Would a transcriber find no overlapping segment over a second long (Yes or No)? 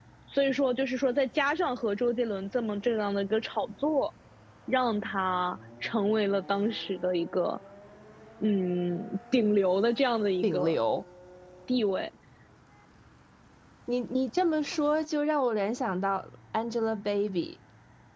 Yes